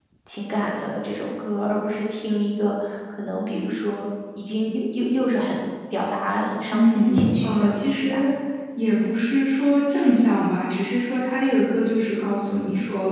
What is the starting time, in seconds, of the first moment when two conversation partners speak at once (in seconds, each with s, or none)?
6.7 s